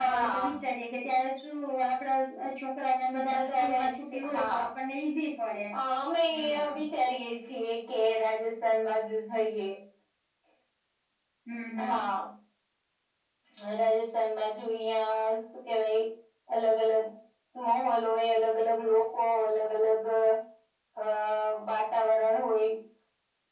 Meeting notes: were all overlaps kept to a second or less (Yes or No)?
No